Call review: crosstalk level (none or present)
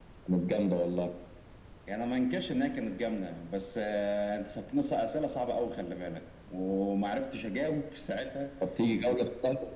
none